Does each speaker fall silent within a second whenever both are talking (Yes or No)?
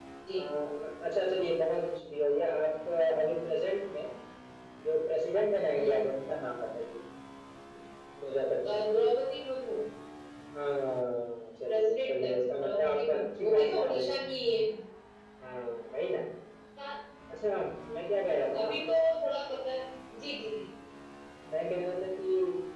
No